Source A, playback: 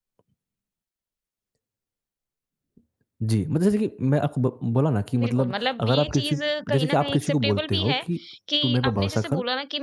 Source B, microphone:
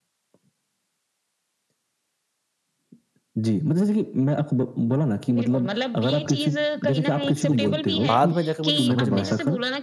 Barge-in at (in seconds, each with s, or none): 7.5 s